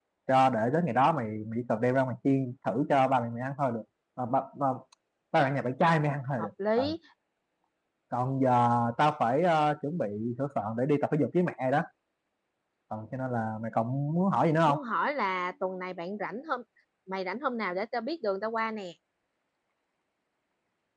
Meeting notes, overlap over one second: none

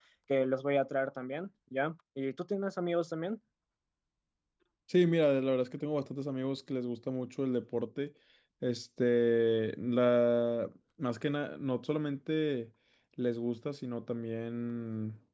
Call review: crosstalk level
none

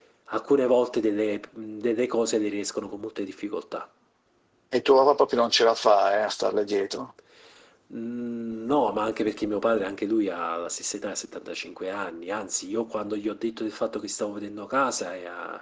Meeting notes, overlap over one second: none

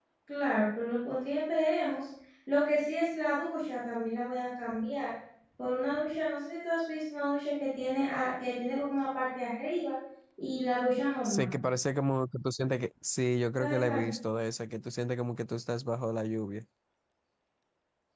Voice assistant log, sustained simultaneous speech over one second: none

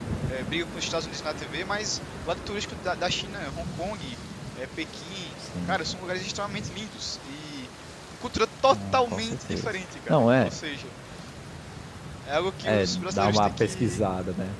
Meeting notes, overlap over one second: present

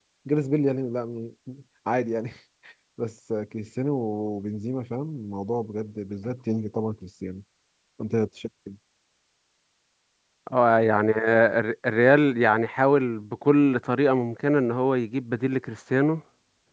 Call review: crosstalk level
none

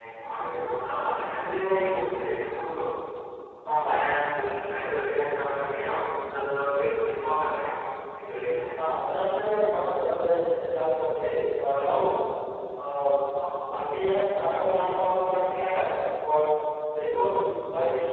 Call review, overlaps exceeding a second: none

